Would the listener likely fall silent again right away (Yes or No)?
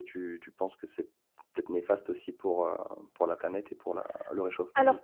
No